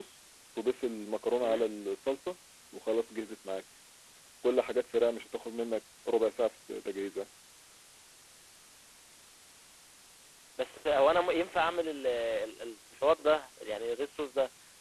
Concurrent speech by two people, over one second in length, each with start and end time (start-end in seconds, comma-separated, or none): none